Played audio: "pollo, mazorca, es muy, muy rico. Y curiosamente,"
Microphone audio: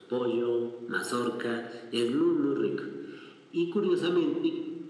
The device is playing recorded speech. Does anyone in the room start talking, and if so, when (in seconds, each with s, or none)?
none